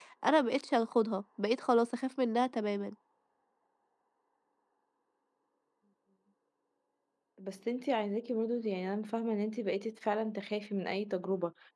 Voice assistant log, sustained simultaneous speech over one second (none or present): none